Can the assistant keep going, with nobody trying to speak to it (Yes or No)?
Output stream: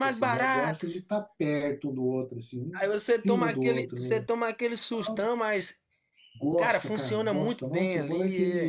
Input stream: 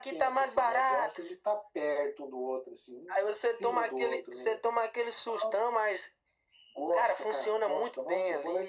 Yes